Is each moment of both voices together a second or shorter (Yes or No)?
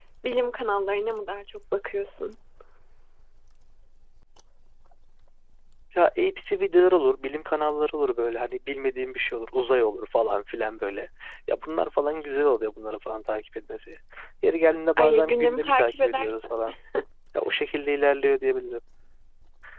No